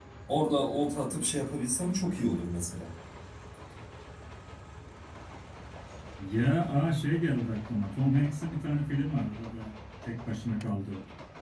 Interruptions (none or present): none